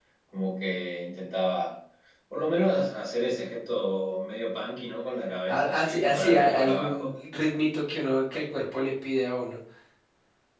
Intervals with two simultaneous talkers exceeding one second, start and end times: 5.5-7.1

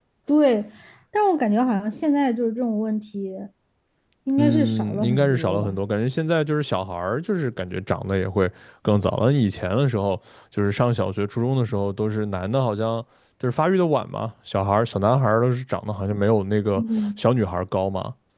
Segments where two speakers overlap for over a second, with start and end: 4.4-5.8

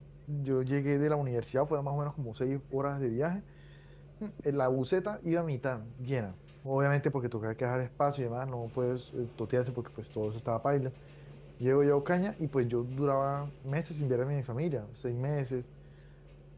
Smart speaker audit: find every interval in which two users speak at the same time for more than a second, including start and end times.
none

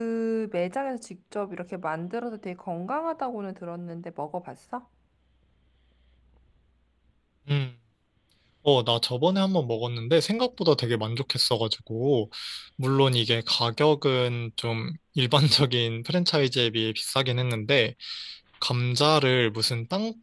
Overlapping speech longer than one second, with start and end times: none

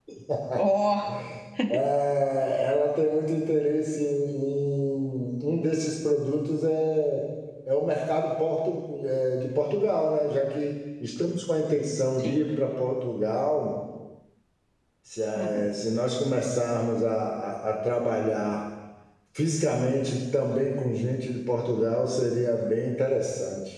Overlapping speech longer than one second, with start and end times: none

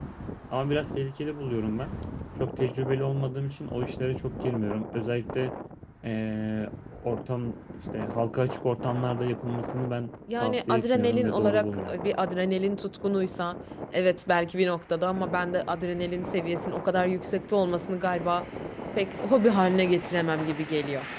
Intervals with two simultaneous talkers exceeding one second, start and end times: 10.4-12.0

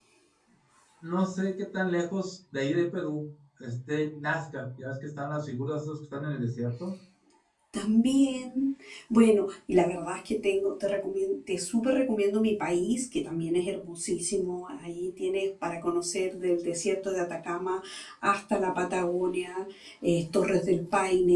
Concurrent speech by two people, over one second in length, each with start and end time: none

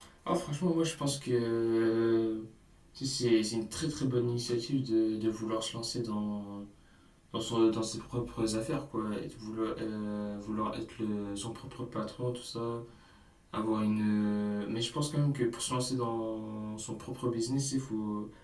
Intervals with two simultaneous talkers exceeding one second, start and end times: none

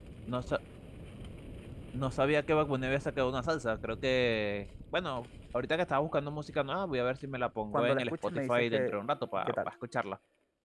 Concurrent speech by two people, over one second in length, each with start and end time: 7.7-8.9

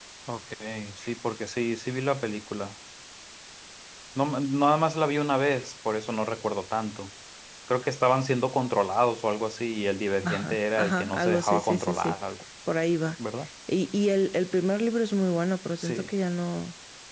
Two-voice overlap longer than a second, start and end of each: 10.2-12.2

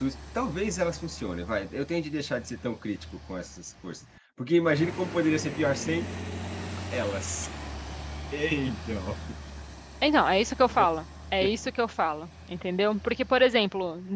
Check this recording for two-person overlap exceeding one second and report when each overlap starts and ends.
none

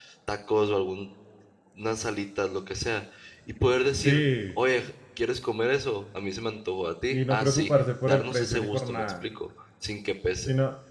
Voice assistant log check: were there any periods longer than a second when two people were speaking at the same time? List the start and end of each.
7.1-9.2

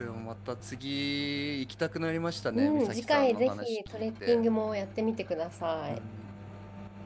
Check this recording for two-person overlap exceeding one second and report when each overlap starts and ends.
2.5-4.5

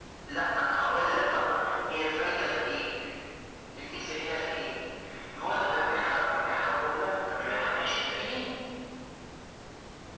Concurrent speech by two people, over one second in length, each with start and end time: none

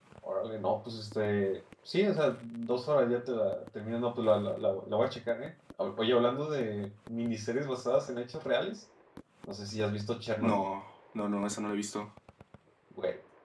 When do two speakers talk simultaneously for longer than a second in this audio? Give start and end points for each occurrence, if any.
none

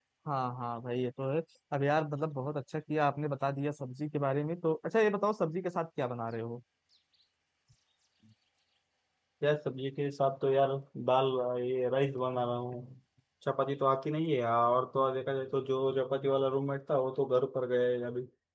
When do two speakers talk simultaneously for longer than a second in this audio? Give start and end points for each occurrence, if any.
none

